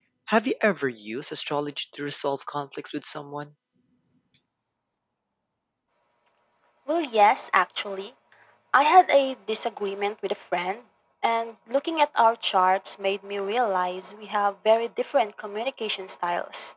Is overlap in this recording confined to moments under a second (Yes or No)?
Yes